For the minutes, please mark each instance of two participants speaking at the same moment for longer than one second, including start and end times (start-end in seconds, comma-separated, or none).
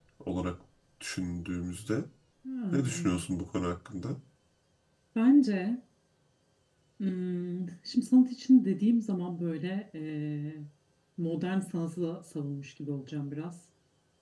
none